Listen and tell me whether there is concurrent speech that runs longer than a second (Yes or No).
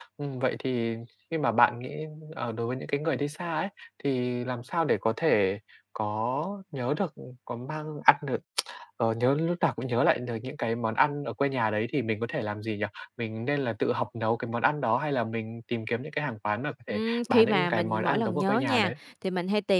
Yes